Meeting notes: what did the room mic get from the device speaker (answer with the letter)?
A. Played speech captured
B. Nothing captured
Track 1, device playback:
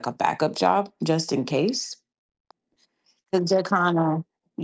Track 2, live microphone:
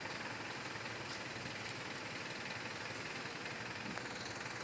B